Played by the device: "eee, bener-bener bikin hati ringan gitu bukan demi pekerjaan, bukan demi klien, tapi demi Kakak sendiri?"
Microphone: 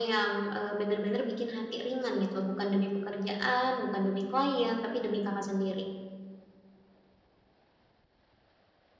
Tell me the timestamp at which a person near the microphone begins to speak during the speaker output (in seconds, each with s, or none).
none